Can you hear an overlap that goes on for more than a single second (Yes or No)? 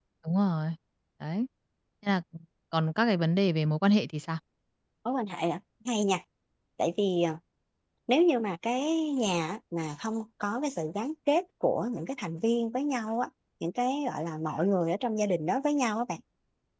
No